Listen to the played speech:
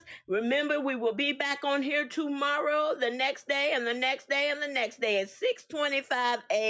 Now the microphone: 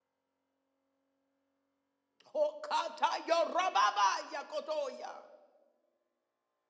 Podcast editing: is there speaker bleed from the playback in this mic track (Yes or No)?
No